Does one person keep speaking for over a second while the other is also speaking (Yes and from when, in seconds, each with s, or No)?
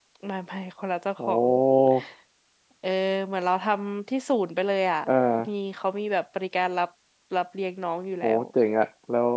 No